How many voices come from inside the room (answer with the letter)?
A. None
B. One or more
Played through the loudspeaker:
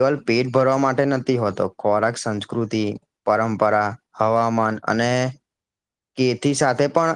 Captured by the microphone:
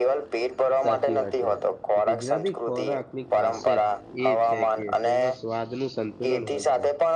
B